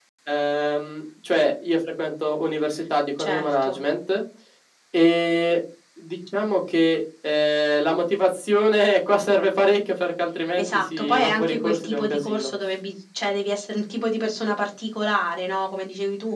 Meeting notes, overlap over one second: present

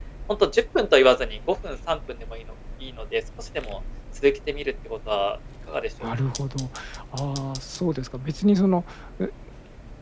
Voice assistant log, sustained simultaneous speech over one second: none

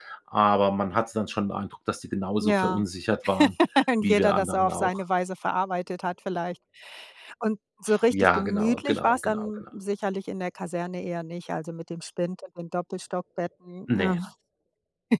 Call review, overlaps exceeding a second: present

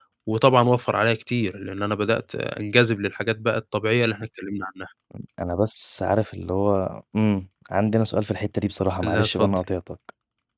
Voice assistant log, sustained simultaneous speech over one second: none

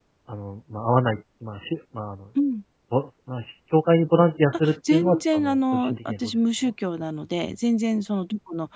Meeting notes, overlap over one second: present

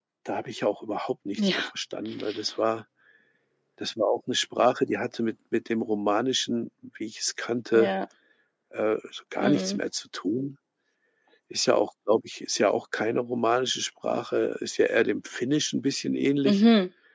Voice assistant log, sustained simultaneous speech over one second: none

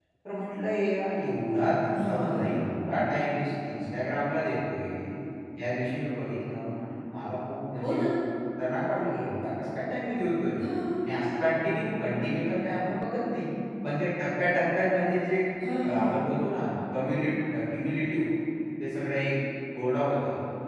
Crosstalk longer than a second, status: none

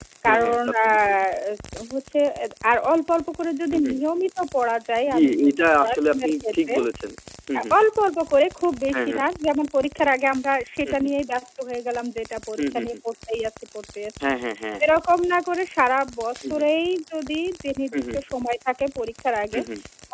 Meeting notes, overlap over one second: present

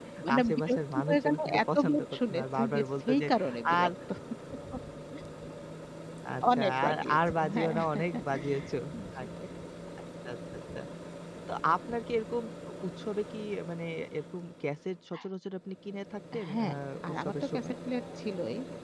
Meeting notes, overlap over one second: present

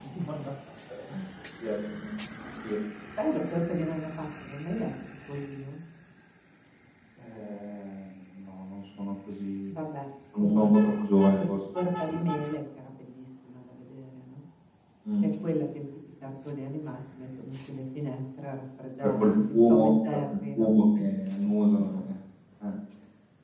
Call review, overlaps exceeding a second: present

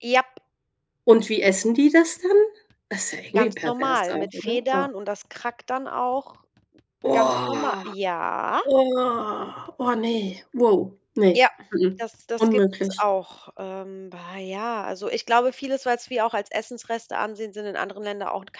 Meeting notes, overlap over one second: present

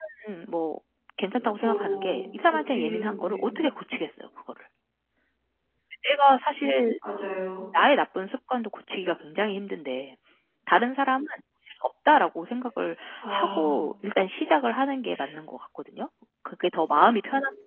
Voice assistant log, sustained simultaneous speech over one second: present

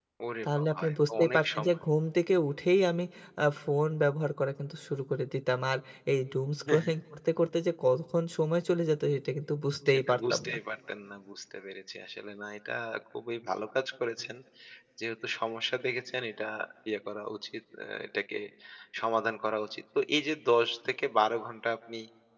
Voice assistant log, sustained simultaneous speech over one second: present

